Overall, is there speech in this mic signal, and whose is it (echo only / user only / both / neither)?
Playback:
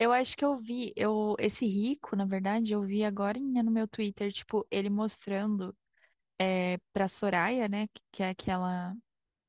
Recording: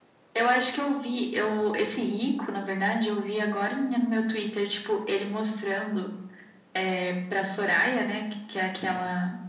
echo only